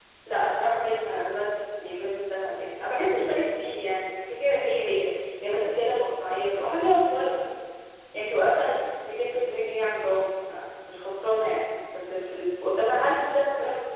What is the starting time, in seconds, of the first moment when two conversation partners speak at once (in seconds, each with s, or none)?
none